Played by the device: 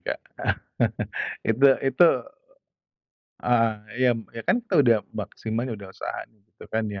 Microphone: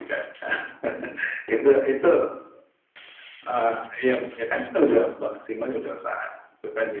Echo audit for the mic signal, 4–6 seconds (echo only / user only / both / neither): echo only